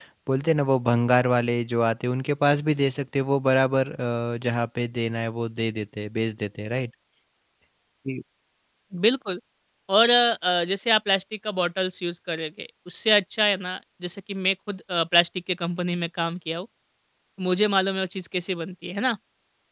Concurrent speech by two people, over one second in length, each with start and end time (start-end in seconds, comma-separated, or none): none